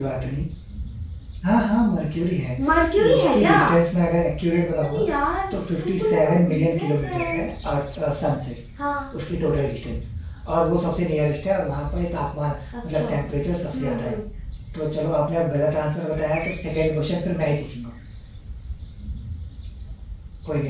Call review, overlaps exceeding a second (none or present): present